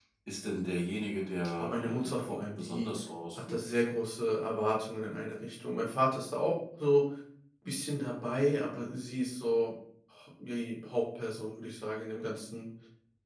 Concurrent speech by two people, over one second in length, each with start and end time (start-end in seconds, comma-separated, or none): 1.6-2.9